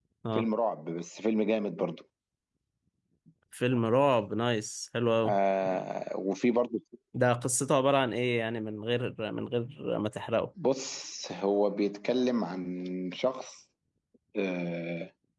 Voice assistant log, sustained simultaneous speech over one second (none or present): none